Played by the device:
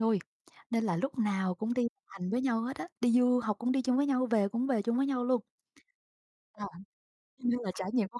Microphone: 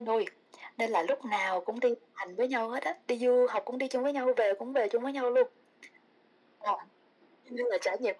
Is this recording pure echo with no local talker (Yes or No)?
Yes